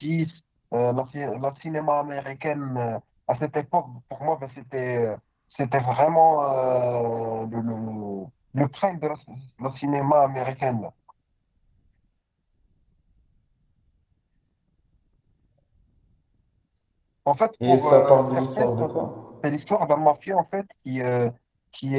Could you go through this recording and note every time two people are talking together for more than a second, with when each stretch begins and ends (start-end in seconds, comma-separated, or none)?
17.6-18.9